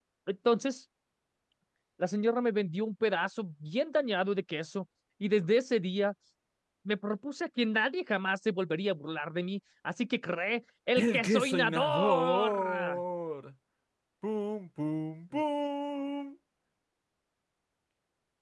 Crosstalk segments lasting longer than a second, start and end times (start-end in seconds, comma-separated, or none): 11.0-13.0